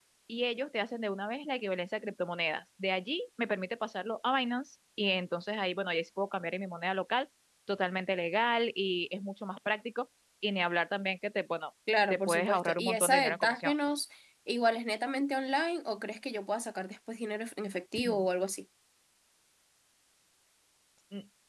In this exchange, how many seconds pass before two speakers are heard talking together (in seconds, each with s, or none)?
12.1 s